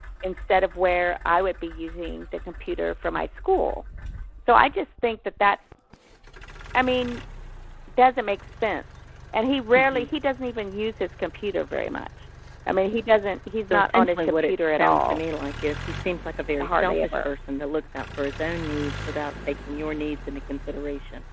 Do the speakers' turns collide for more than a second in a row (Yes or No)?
Yes